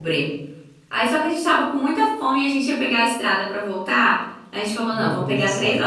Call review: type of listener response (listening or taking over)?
listening